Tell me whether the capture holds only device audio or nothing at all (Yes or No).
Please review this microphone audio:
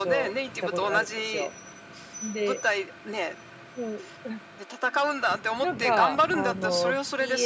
No